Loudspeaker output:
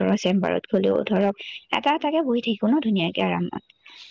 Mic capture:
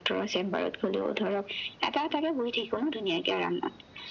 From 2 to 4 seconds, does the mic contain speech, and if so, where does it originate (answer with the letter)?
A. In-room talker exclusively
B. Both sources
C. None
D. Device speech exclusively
D